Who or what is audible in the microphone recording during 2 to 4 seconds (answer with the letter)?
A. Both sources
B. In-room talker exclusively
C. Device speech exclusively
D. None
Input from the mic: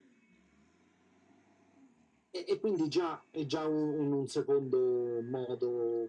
C